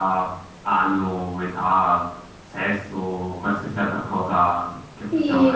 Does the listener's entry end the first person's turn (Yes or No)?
Yes